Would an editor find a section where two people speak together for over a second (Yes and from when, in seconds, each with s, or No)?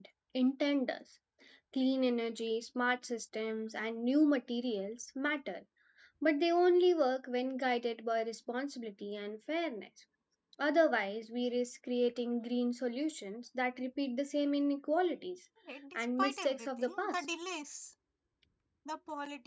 Yes, from 15.9 s